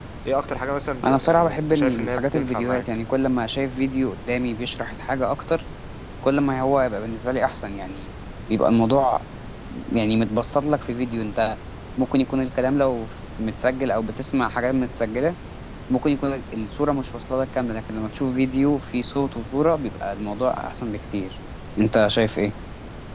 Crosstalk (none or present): present